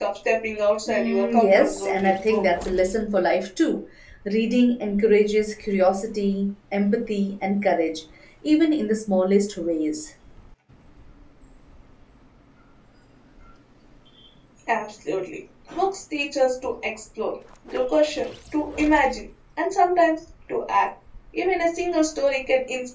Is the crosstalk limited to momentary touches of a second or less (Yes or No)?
No